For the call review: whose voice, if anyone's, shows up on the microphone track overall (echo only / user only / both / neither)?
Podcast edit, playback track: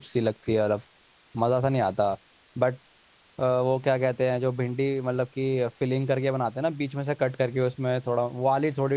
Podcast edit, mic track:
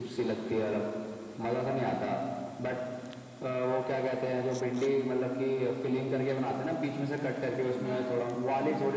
both